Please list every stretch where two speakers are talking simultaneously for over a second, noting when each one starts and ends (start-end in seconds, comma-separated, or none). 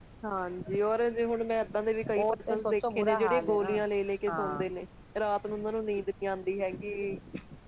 2.1-3.7